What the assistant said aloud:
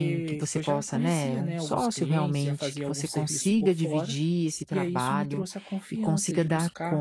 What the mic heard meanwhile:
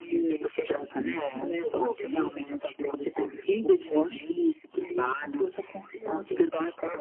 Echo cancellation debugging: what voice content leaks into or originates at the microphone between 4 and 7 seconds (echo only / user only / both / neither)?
echo only